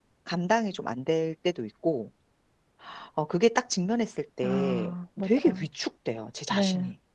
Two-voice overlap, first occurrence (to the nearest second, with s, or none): 4 s